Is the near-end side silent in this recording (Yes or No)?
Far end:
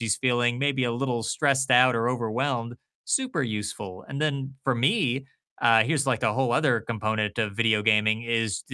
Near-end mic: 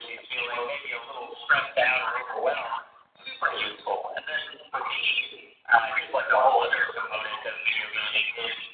Yes